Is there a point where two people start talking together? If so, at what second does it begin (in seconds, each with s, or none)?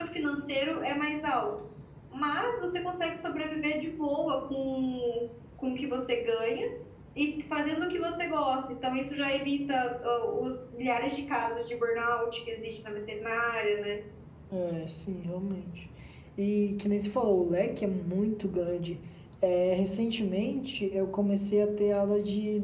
none